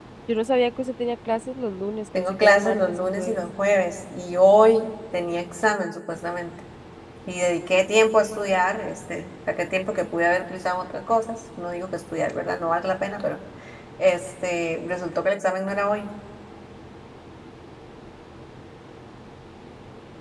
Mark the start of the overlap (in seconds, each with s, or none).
2.1 s